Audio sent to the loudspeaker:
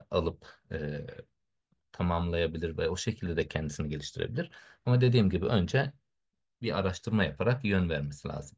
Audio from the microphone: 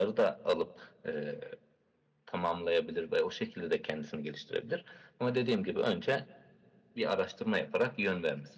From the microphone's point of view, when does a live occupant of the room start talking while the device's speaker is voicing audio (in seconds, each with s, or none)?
none